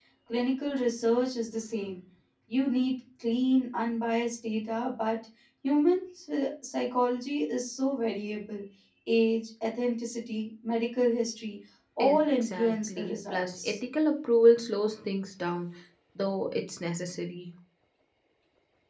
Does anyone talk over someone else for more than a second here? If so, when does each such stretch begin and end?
12.0-13.8

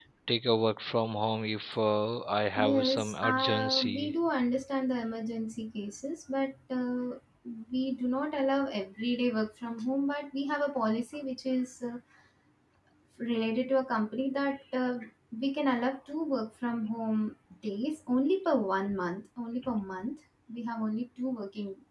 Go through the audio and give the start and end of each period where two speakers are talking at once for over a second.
2.6-4.1

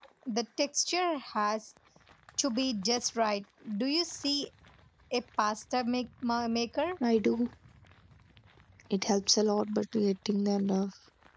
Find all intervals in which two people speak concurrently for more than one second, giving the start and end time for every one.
none

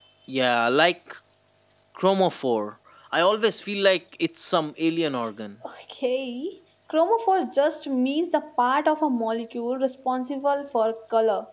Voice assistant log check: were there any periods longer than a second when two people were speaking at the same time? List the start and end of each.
none

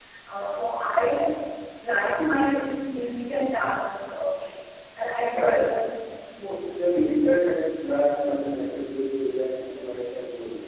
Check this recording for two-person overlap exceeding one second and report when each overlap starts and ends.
none

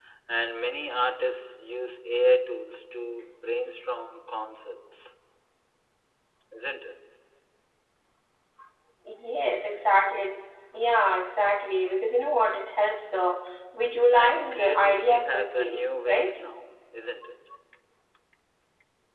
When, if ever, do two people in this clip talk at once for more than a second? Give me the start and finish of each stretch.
14.1-16.4

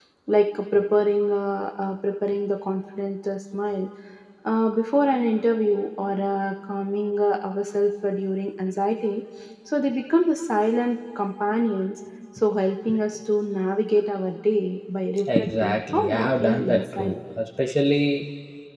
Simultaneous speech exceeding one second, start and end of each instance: 15.3-17.1

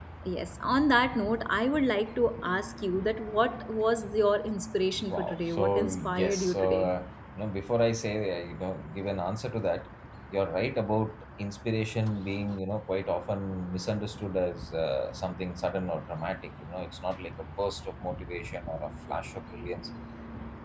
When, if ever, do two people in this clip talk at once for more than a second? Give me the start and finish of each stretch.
5.1-6.9

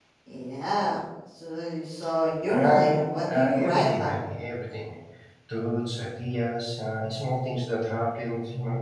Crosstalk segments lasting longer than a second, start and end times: 2.5-4.2

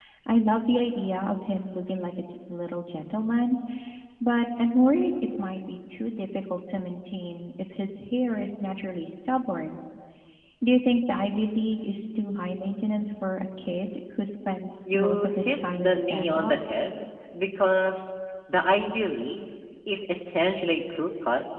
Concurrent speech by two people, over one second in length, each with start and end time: 14.9-16.7

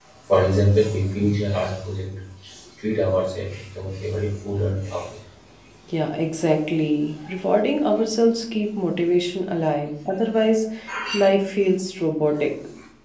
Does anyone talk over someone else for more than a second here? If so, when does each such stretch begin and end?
none

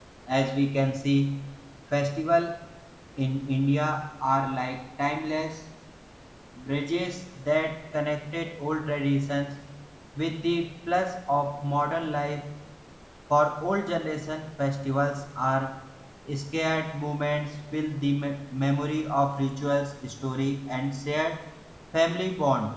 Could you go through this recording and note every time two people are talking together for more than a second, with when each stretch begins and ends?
none

